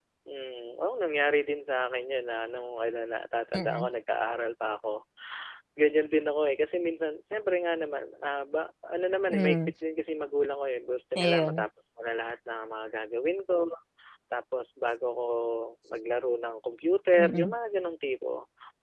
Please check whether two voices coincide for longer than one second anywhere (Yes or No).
No